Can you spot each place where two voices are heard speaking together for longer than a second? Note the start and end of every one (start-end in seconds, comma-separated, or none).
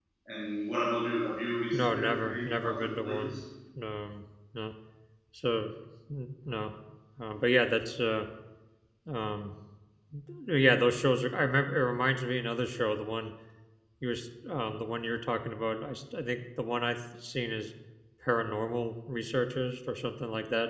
1.7-3.4